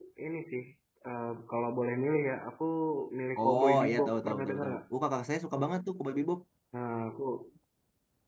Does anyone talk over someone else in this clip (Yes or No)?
Yes